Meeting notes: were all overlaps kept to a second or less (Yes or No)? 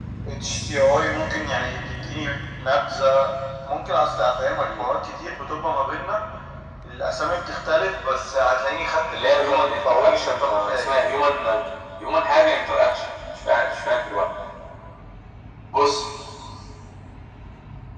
No